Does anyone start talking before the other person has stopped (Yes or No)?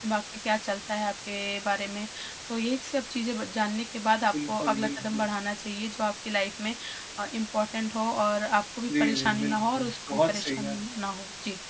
Yes